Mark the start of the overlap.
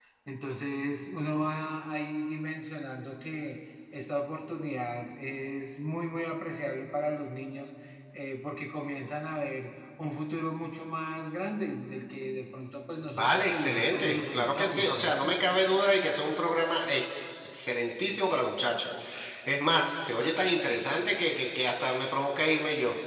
13.1 s

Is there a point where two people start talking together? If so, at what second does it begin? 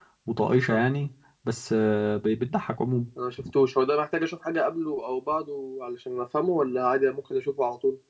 none

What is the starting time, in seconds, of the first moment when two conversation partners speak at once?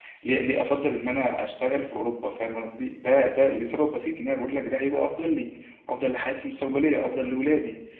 none

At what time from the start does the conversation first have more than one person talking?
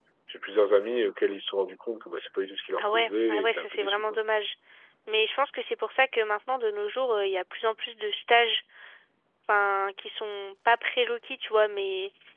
2.8 s

